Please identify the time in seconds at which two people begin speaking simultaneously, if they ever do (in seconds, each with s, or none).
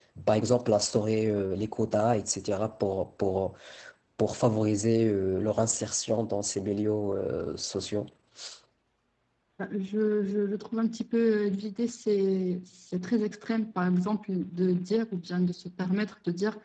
none